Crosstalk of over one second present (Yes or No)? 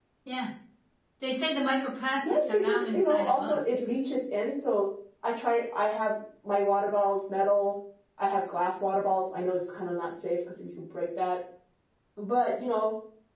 Yes